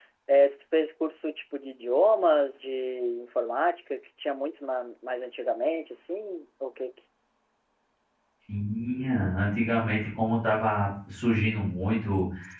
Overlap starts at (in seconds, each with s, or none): none